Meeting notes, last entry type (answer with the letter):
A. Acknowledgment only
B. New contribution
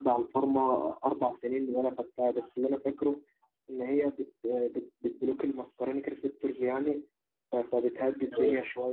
A